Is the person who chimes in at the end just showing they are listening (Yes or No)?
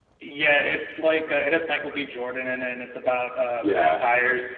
No